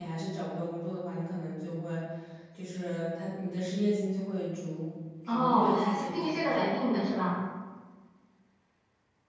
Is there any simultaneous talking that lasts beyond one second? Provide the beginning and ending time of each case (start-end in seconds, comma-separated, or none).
5.3-6.5